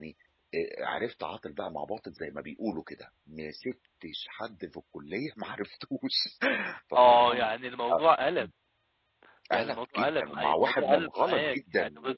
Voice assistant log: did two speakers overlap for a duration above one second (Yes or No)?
Yes